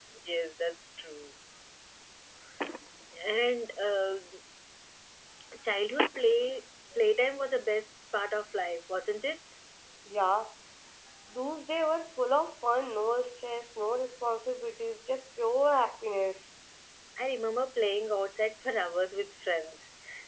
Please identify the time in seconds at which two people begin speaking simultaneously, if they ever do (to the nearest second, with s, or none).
none